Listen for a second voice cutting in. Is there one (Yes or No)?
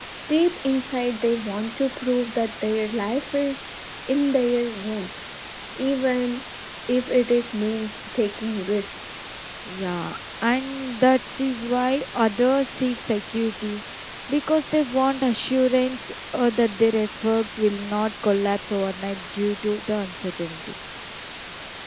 No